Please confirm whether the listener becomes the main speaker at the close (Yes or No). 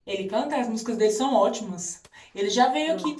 No